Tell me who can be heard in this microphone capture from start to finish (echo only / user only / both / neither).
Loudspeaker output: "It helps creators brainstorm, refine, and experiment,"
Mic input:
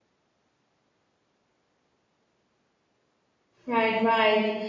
user only